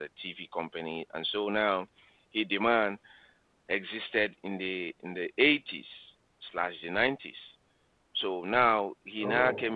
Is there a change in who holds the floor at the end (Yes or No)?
No